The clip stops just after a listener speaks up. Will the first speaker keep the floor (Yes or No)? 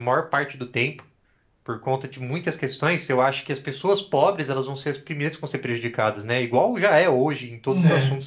Yes